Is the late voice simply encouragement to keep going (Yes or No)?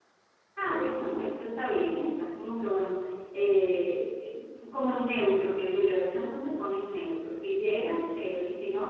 Yes